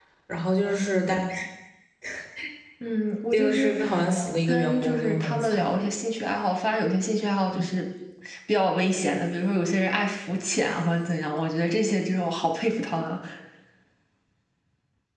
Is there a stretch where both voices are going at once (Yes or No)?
Yes